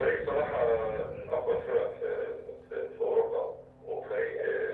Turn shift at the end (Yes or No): No